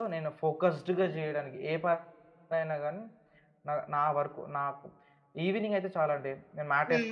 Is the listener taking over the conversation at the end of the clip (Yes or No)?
No